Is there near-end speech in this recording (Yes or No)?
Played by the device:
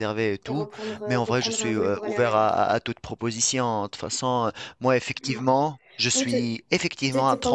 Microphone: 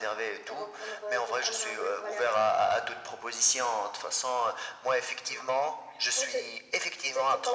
No